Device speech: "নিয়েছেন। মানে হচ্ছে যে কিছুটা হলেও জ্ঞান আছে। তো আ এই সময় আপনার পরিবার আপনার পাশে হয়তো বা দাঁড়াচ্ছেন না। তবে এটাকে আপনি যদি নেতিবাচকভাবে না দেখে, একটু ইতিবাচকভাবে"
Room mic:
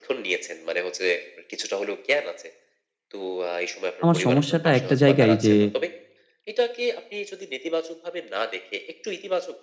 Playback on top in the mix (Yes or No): No